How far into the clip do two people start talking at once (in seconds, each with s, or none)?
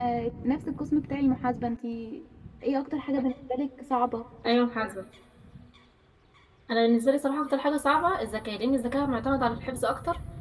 none